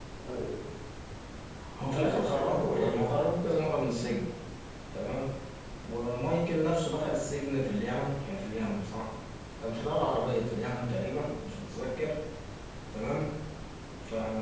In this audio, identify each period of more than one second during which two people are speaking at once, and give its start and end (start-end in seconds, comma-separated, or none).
1.9-3.2